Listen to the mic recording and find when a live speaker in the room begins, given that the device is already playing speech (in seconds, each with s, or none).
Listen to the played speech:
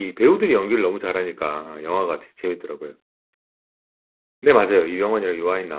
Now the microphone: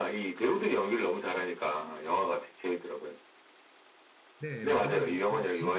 4.4 s